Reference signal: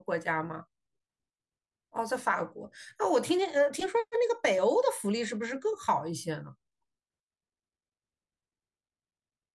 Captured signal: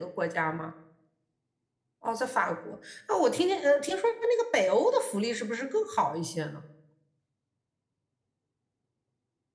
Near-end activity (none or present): none